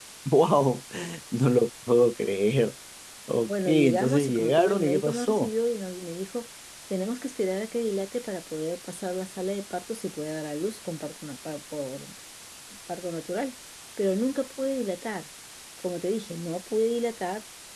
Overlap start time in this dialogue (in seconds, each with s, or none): 3.5 s